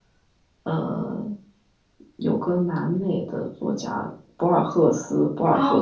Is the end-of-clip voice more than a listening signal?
Yes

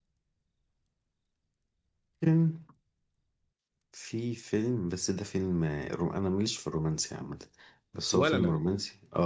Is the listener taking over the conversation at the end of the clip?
No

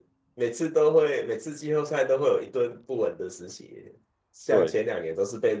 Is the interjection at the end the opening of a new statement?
No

